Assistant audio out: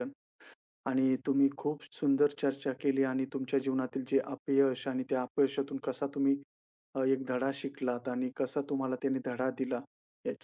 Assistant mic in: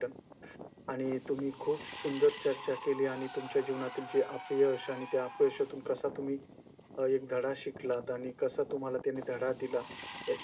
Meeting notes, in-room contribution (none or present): none